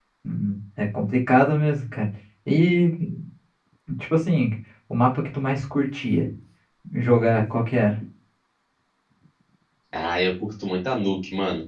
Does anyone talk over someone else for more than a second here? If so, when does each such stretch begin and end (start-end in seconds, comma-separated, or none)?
none